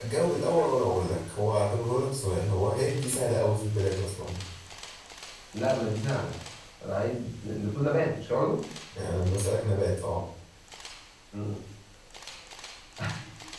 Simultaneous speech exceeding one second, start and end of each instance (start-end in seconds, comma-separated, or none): none